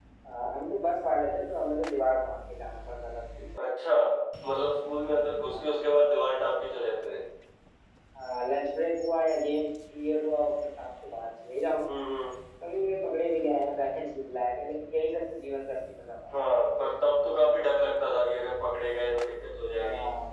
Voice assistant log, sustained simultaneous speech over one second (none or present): none